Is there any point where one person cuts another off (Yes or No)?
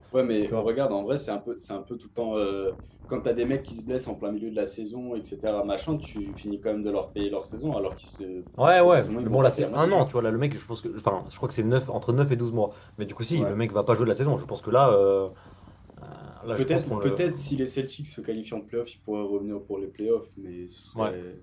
Yes